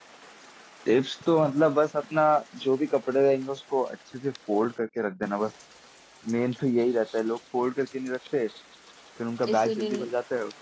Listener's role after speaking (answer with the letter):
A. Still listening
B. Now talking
A